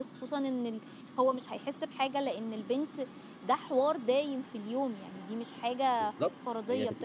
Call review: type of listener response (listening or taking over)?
taking over